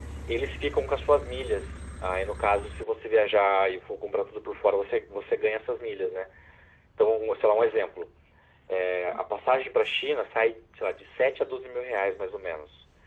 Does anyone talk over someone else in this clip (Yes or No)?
No